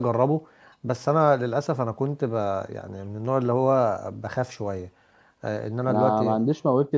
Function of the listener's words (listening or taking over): taking over